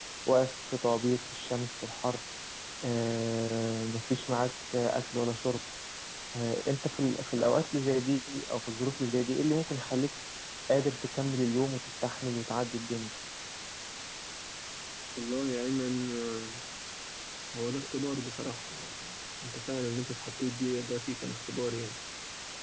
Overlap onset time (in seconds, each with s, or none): none